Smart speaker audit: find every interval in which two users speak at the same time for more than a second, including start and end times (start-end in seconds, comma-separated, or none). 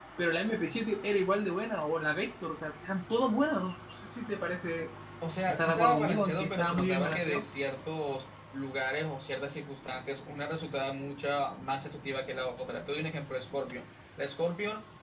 5.5-7.4